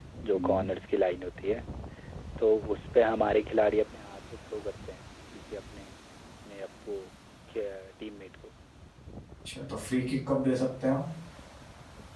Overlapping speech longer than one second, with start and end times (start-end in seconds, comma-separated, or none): none